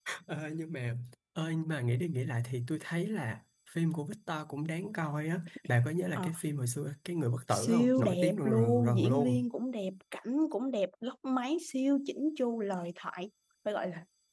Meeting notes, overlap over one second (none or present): present